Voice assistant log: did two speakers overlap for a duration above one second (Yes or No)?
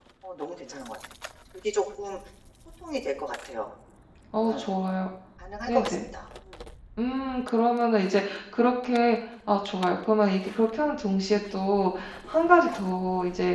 No